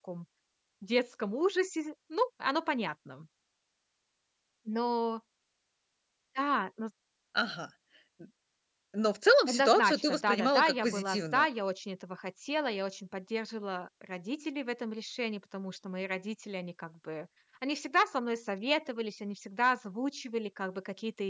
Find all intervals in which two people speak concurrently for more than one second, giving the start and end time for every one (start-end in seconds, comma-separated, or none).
9.5-11.5